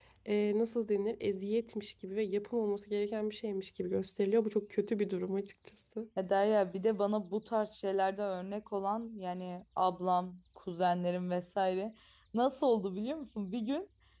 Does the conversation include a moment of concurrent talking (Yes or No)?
No